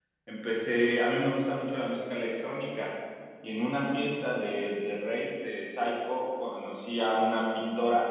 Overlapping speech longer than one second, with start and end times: none

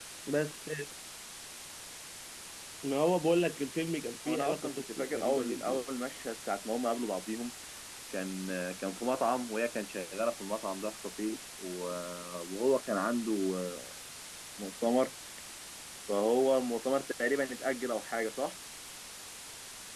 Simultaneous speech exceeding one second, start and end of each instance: 4.3-5.8

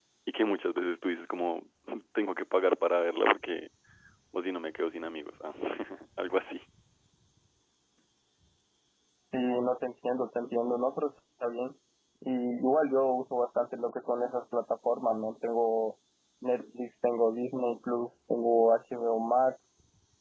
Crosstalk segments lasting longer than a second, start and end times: none

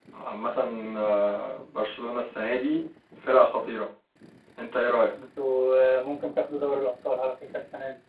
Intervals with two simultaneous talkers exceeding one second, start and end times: none

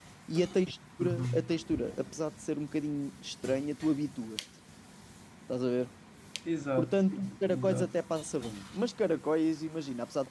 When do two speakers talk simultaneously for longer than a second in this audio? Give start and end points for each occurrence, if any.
none

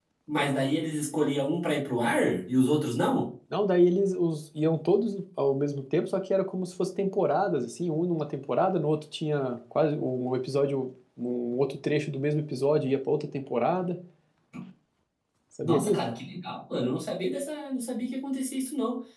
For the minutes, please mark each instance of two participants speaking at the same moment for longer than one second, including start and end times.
none

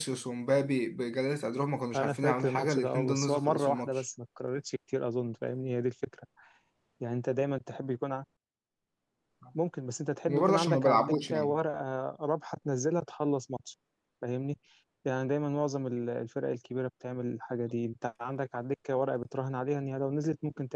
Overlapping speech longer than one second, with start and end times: 1.9-4.0, 10.3-11.6

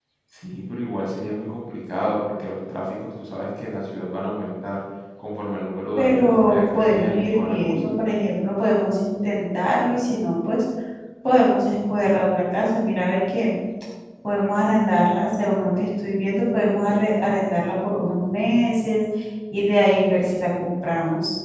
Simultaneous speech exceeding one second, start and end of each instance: 6.0-7.9

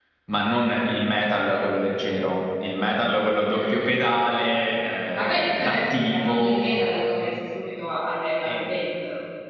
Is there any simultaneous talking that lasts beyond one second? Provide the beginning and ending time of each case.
5.2-6.7

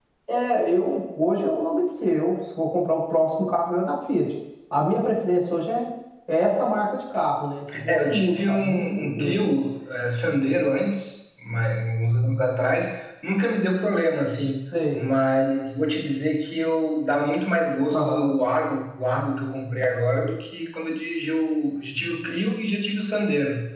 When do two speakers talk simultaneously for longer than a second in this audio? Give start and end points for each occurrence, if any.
7.9-9.4

